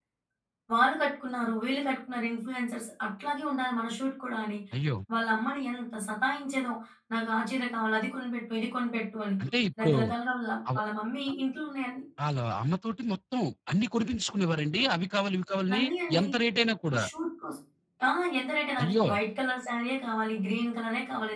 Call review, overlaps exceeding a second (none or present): none